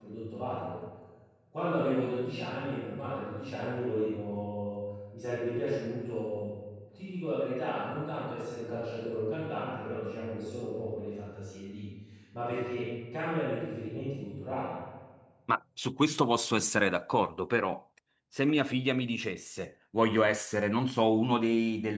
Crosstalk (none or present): none